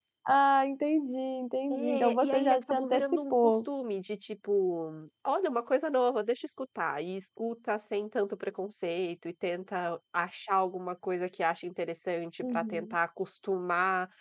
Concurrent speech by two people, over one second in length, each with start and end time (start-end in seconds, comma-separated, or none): 1.7-3.5